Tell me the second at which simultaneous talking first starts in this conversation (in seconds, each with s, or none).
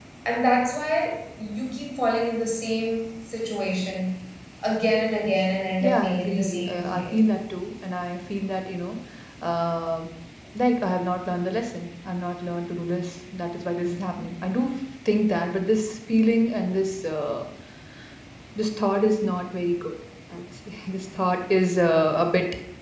5.8 s